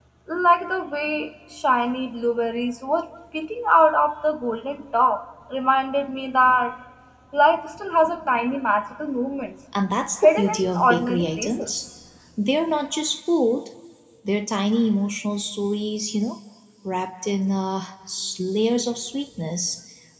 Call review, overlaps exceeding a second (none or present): present